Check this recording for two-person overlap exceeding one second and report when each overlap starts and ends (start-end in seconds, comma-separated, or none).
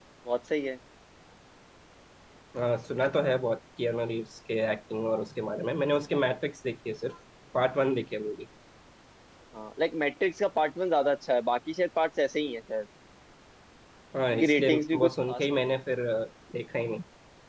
14.3-15.6